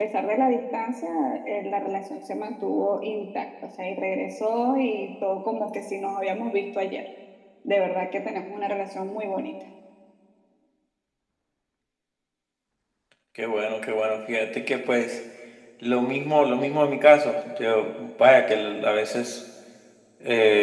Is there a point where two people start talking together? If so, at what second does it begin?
none

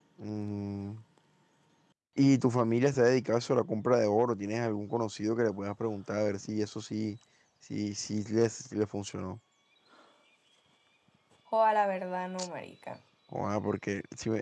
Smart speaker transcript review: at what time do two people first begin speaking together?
none

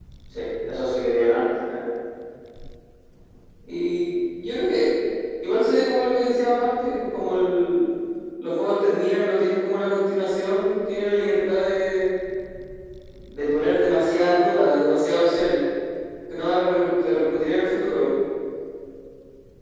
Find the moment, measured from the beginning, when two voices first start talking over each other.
none

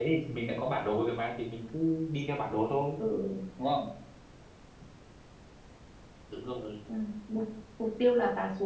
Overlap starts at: none

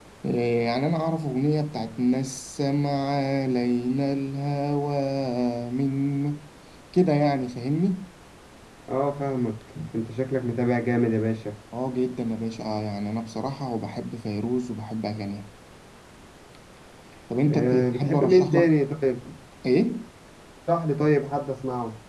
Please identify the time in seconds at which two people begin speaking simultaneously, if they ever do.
17.5 s

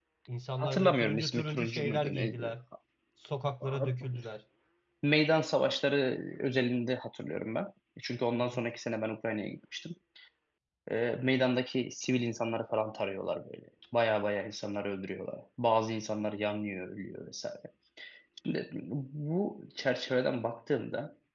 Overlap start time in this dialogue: 0.6 s

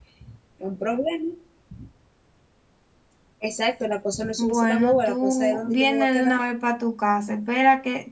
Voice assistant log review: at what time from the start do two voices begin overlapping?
4.4 s

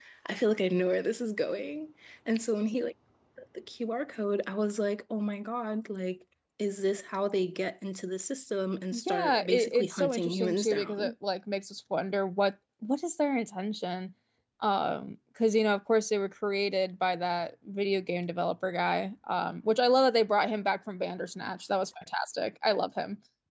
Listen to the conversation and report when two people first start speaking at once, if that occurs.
8.9 s

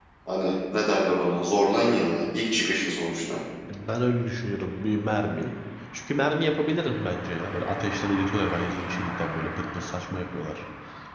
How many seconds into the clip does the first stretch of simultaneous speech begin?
none

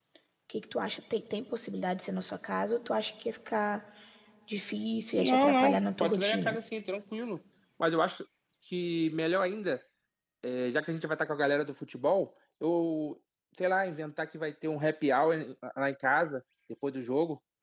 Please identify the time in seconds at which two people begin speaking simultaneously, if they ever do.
5.2 s

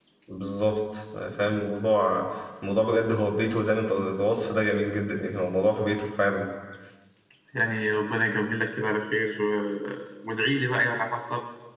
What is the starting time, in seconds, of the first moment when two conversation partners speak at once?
none

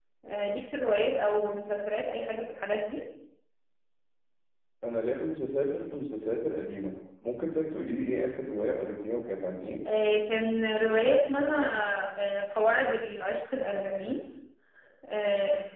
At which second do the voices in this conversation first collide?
none

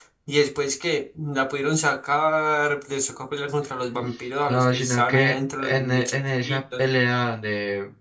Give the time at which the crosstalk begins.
4.5 s

